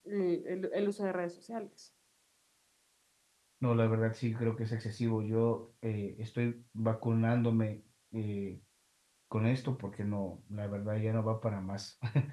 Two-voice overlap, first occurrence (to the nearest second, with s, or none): none